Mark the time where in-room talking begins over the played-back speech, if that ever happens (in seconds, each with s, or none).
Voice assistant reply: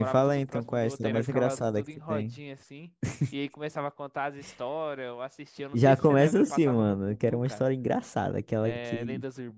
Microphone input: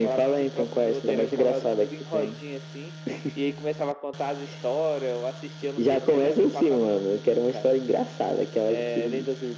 none